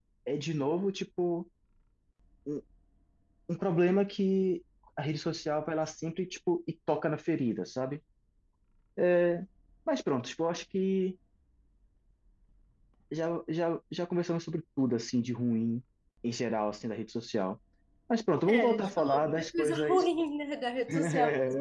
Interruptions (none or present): present